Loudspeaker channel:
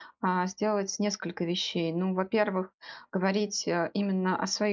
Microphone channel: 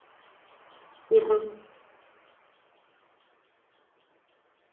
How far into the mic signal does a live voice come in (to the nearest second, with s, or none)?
1 s